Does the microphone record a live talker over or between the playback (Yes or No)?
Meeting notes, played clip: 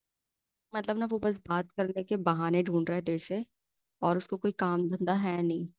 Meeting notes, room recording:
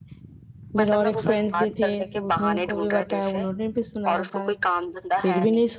Yes